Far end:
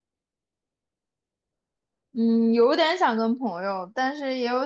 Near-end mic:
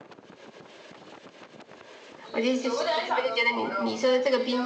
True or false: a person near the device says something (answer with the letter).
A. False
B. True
B